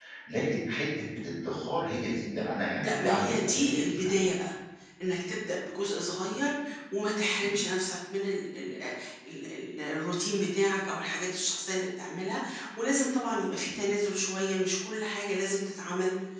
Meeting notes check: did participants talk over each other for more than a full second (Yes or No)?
Yes